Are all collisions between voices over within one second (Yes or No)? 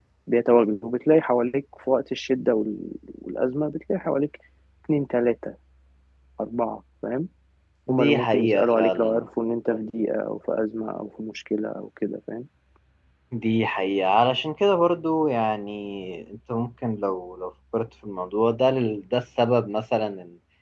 No